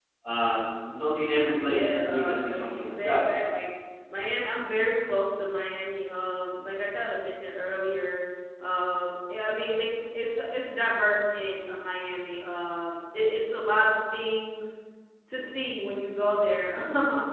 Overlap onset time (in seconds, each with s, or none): 1.6 s